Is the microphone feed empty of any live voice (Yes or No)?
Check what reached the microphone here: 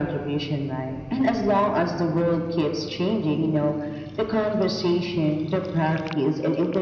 Yes